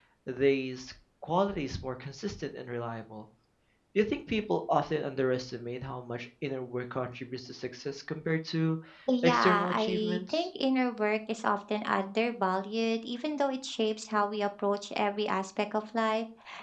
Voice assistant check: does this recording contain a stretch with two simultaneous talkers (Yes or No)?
Yes